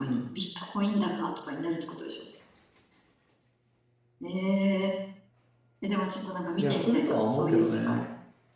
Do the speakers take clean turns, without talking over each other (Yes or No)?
No